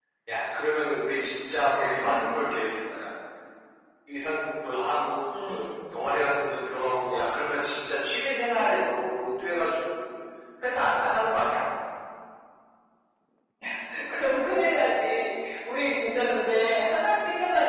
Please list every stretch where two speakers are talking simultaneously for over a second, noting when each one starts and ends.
none

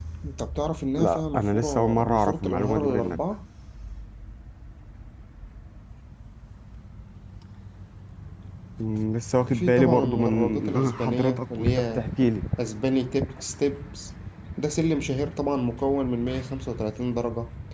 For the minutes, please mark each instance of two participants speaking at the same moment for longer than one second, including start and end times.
1.0-3.2, 9.5-12.1

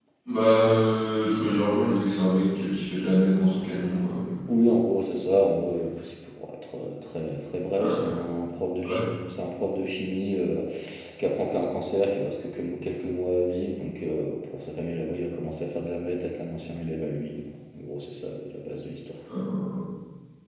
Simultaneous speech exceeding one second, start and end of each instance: none

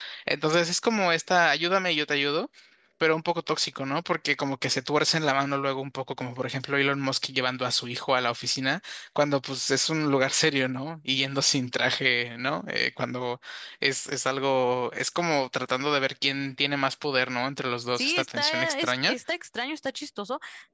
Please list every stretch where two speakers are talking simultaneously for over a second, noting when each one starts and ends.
17.9-19.1

